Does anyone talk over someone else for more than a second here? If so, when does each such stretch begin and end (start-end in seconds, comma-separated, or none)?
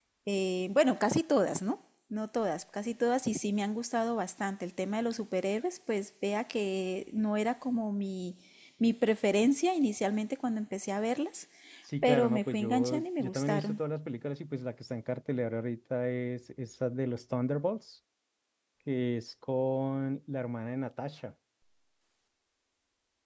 12.0-13.8